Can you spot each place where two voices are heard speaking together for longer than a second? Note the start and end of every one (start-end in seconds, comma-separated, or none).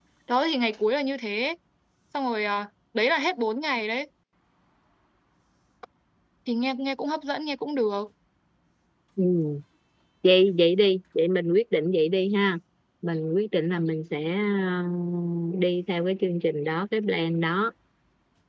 none